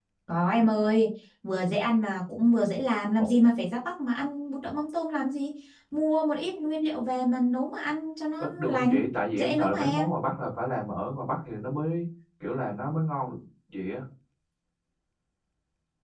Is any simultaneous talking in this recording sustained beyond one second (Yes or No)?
Yes